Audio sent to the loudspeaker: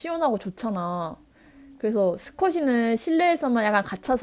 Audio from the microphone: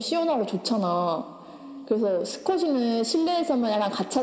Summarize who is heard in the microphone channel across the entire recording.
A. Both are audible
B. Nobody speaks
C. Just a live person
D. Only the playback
D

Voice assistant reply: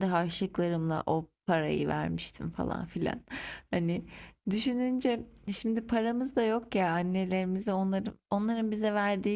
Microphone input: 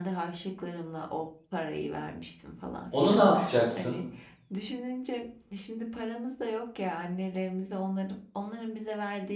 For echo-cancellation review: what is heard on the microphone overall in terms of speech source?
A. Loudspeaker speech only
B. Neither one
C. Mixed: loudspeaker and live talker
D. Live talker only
C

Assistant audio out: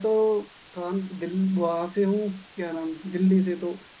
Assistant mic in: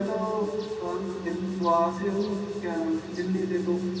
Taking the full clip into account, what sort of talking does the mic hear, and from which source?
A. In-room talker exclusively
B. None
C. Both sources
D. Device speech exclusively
D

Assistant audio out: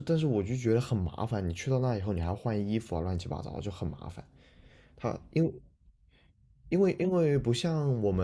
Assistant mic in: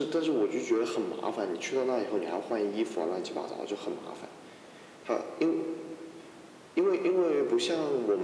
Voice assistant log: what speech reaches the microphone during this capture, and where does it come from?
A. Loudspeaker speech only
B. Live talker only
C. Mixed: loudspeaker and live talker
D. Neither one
A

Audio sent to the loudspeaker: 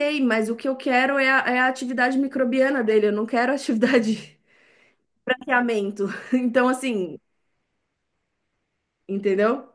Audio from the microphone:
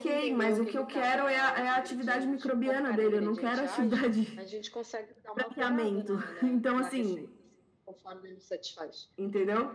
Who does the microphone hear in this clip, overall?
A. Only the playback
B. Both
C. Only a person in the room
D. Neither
B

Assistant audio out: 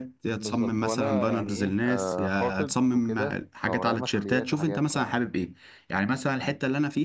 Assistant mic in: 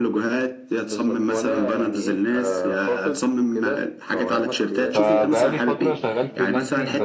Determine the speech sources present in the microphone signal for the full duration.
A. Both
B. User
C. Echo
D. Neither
A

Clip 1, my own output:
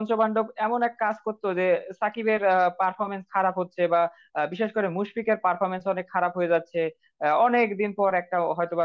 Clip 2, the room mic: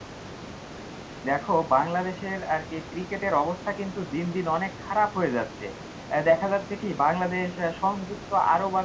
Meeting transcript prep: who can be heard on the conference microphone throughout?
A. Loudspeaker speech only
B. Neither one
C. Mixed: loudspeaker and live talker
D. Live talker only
D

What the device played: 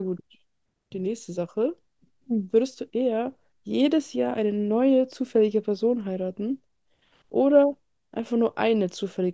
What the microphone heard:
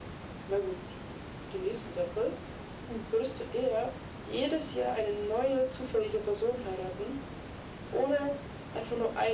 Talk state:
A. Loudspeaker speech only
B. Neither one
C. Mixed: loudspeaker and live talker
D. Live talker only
A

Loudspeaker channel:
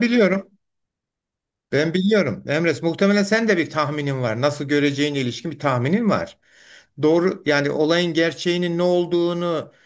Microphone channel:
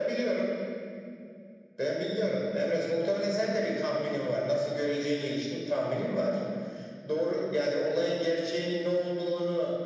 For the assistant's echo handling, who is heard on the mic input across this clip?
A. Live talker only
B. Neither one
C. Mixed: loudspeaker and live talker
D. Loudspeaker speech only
D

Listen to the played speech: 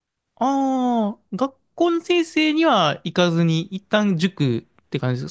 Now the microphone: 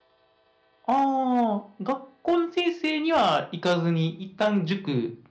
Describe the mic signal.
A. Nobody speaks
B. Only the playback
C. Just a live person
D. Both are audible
B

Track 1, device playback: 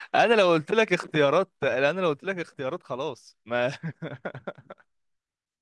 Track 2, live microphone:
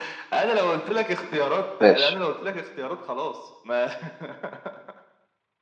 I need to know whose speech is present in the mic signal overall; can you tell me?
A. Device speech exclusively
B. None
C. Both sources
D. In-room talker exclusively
C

